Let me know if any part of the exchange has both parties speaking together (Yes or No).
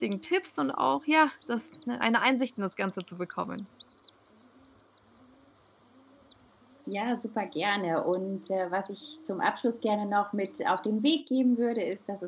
No